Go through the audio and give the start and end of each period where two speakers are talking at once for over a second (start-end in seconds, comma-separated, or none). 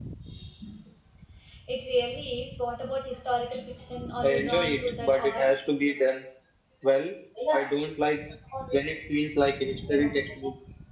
4.2-5.5